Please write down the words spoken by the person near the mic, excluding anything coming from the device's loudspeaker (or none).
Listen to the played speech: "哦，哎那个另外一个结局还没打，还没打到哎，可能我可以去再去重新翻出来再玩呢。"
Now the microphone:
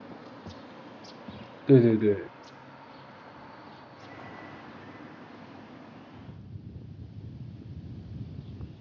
对对对